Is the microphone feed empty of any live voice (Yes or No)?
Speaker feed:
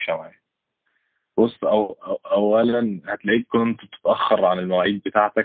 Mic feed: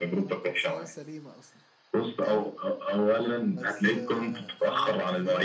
No